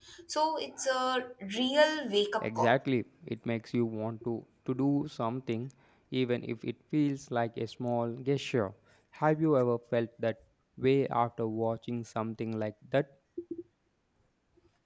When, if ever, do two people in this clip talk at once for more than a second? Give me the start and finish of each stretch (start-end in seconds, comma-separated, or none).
none